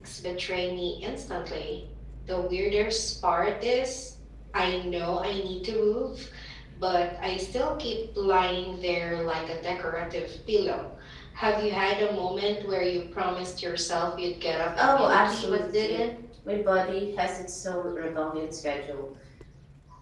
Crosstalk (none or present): present